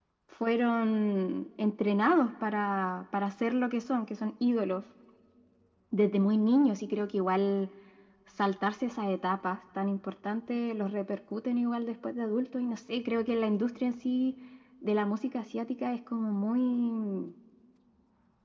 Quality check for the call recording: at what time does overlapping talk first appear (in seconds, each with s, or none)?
none